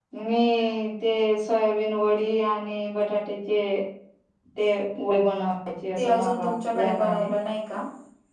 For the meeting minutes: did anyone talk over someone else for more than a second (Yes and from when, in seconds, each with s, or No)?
Yes, from 6.0 s